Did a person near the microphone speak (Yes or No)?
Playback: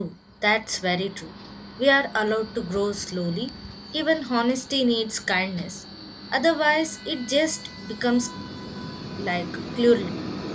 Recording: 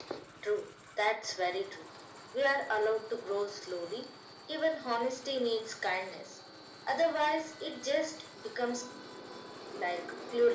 No